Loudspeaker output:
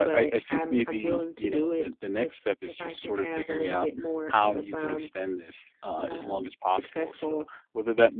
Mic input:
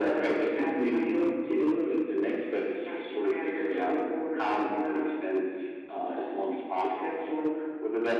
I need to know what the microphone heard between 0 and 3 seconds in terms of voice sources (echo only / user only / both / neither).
echo only